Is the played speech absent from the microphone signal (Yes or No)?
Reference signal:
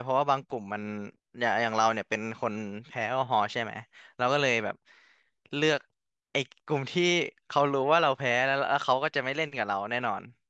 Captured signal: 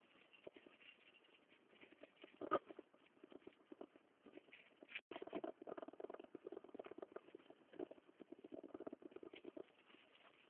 Yes